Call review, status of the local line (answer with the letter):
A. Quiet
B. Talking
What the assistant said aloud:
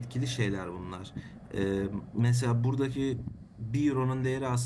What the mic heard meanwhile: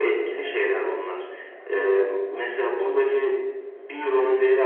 A